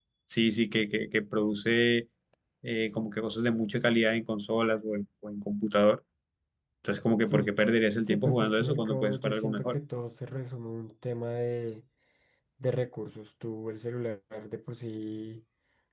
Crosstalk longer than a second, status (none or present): present